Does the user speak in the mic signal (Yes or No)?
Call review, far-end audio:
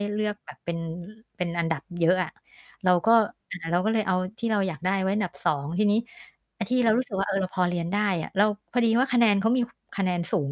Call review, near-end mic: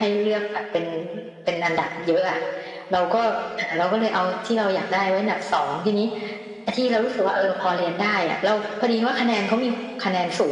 No